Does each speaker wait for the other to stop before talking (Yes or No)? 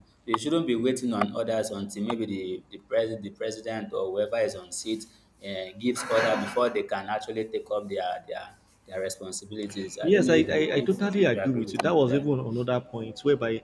No